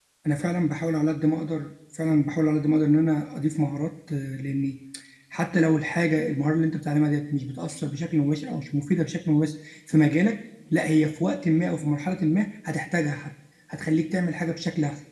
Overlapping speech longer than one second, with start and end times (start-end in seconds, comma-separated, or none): none